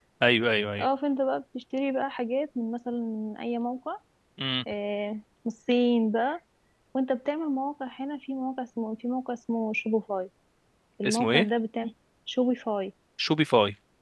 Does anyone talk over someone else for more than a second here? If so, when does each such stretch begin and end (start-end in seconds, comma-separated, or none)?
none